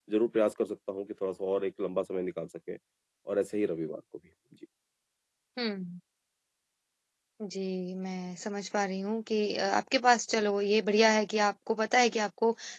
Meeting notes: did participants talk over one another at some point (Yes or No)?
No